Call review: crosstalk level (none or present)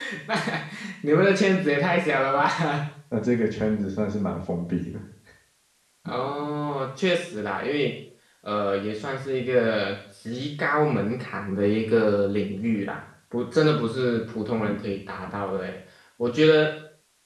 none